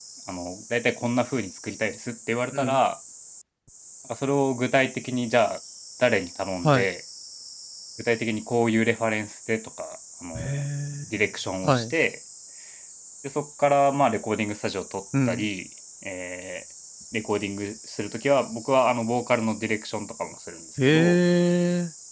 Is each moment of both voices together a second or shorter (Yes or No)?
Yes